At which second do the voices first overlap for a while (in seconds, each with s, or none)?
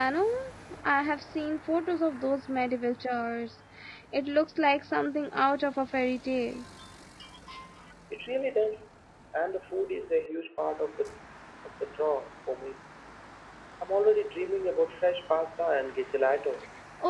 none